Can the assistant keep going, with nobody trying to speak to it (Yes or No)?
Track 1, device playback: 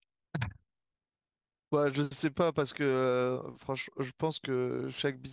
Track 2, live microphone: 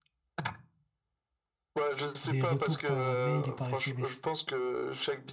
No